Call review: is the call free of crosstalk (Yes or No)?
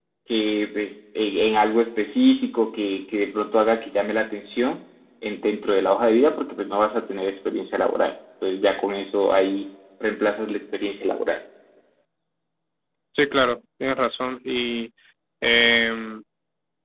Yes